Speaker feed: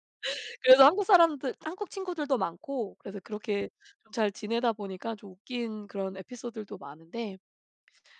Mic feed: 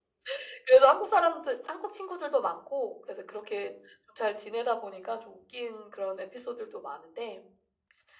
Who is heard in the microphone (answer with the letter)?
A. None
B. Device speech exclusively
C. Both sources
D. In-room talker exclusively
B